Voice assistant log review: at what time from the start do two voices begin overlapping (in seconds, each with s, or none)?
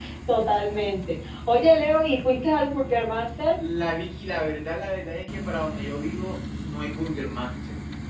none